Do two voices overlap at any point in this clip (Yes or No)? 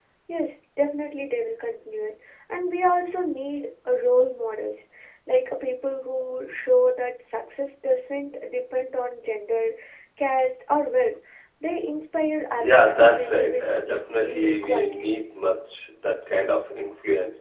Yes